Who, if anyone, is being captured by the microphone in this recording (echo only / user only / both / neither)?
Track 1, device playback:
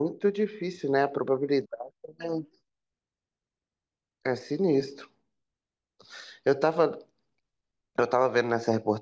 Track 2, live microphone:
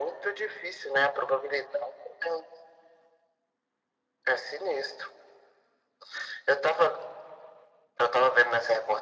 echo only